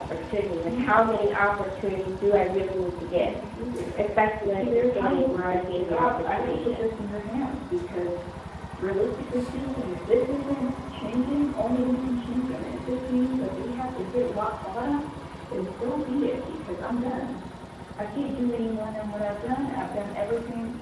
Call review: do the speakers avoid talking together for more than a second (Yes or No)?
No